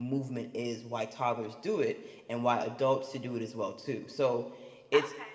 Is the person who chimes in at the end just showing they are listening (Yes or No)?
No